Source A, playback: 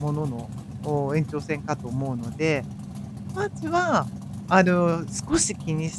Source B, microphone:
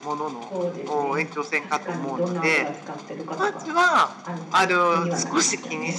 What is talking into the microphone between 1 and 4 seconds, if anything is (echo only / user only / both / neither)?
both